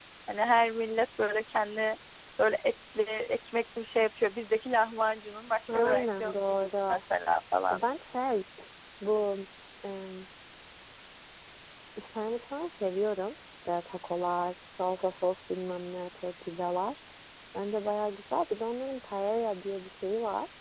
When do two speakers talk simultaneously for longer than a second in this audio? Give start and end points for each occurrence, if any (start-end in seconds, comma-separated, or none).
5.7-7.0